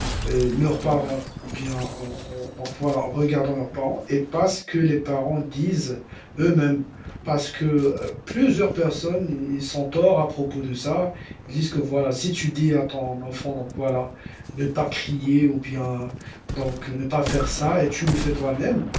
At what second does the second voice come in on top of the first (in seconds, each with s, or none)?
none